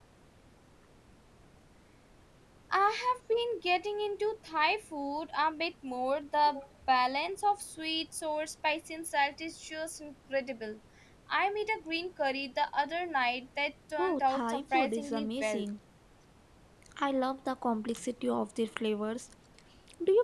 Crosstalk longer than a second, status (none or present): present